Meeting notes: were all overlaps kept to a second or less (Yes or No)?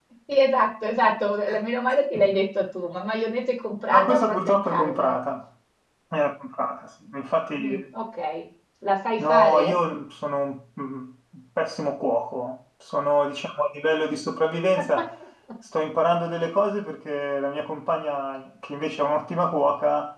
No